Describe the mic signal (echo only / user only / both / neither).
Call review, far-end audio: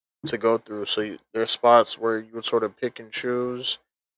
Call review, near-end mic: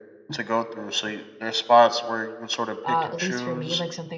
both